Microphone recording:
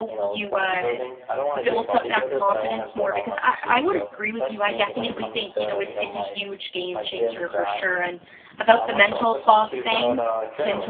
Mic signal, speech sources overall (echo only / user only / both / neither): both